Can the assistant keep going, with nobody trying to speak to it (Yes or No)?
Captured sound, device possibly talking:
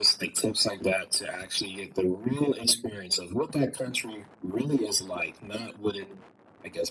Yes